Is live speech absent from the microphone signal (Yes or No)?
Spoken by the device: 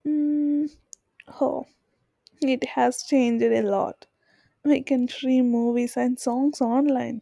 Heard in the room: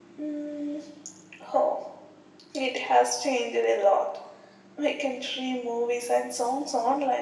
Yes